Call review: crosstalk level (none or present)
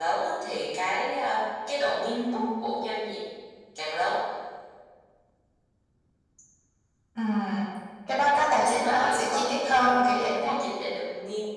present